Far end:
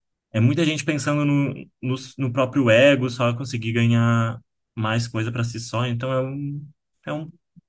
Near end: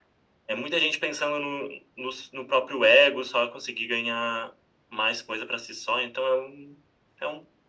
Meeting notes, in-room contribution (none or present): none